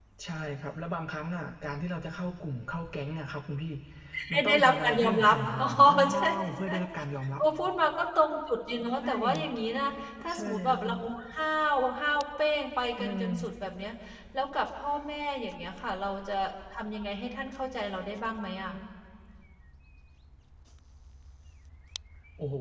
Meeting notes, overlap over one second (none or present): present